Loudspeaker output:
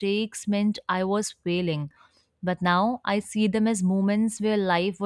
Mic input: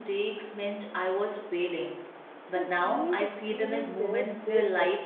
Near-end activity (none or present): present